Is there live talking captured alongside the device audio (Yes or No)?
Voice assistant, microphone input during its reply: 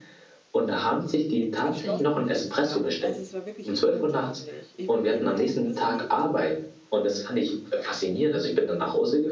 Yes